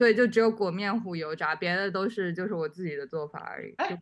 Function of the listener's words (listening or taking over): taking over